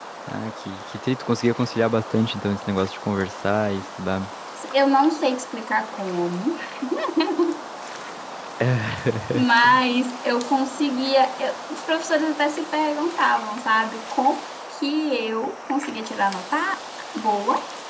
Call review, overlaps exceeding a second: none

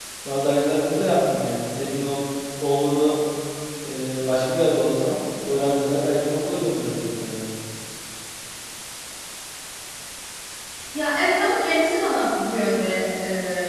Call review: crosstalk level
none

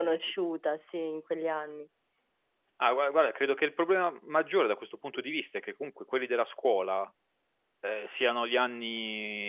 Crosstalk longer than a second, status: none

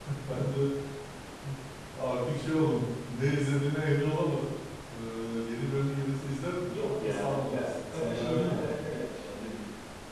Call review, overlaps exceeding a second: present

